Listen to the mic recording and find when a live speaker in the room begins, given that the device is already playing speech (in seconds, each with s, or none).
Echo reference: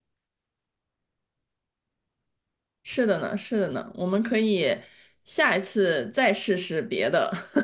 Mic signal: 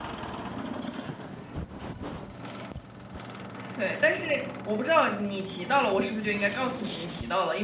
3.8 s